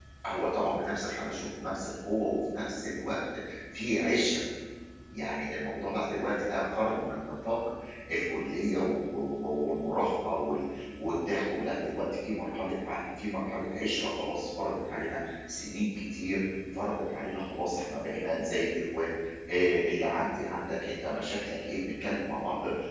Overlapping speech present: No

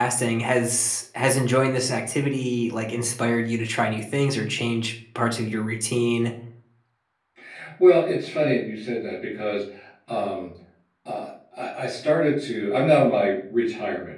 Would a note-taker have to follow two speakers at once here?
No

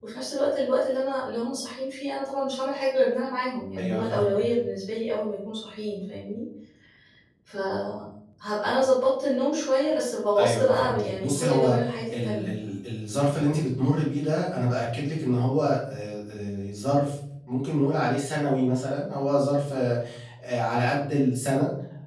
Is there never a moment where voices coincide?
No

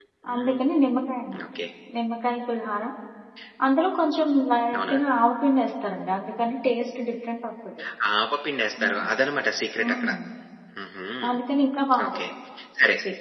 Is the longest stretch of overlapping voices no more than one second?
Yes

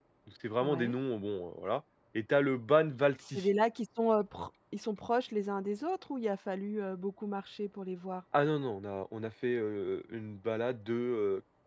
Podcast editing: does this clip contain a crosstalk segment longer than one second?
No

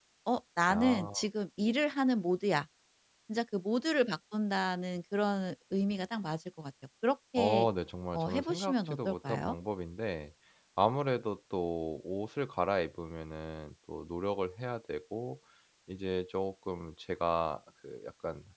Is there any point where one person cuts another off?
Yes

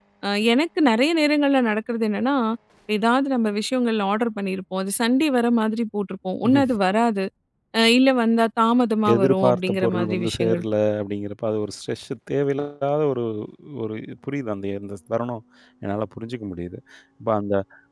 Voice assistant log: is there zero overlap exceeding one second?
No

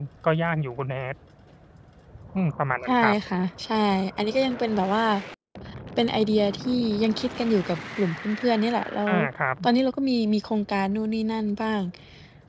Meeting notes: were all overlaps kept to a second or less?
Yes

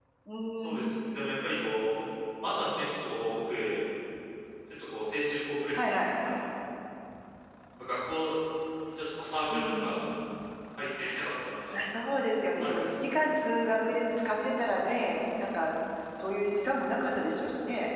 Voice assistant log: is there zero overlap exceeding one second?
Yes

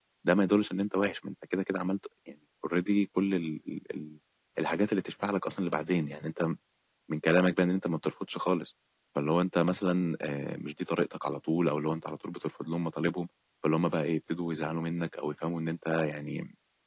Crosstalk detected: No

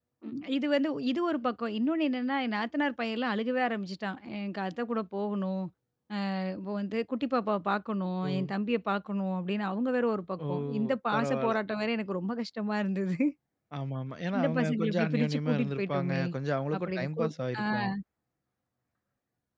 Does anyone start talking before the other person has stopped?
Yes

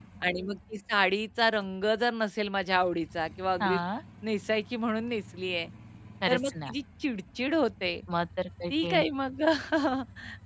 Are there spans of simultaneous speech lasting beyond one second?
No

